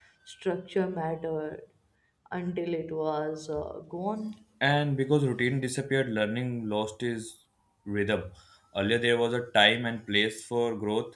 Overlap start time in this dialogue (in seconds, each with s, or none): none